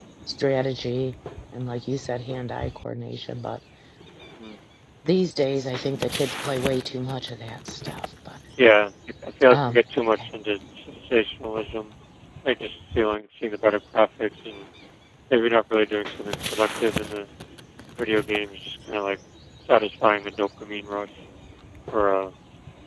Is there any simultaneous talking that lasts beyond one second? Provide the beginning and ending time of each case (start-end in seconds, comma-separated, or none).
none